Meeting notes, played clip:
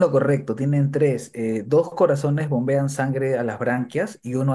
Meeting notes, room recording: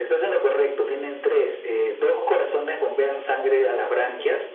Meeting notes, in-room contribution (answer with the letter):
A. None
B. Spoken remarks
B